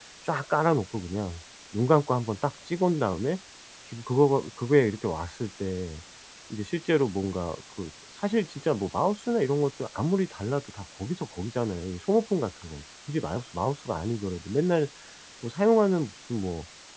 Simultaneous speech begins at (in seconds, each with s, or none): none